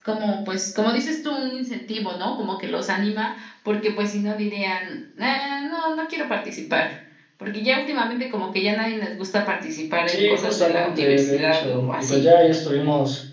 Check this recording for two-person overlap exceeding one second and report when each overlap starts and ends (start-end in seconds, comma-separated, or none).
10.1-12.3